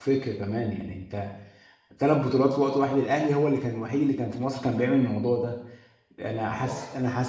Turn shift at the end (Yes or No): No